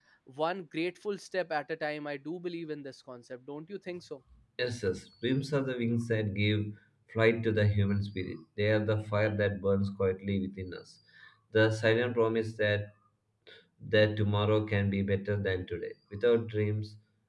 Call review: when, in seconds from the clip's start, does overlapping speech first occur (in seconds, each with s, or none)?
none